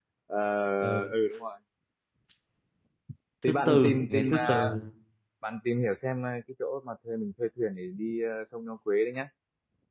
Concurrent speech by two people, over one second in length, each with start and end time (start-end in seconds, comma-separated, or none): 3.5-4.8